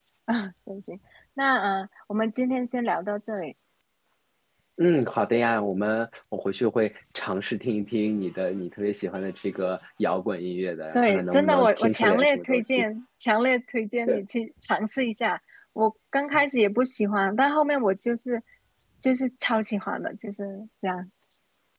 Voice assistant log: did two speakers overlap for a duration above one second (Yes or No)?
Yes